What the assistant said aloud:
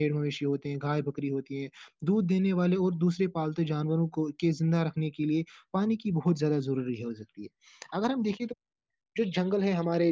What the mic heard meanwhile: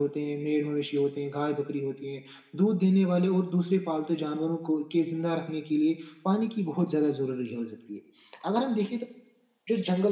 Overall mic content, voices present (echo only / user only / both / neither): echo only